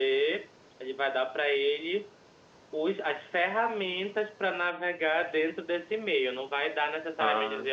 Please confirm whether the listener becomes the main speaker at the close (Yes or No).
No